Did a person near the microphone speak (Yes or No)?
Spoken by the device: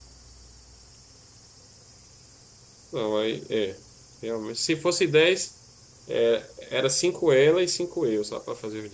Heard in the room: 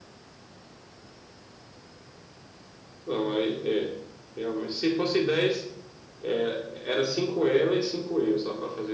No